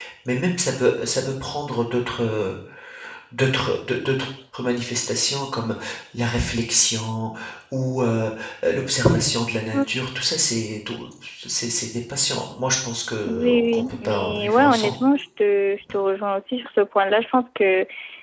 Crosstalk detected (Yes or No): Yes